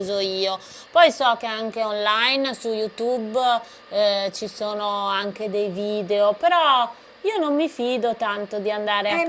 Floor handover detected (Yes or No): Yes